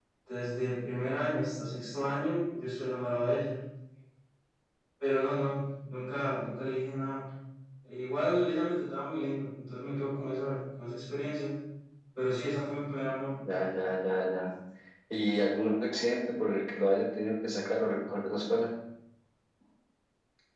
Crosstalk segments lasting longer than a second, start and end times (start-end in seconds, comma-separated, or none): none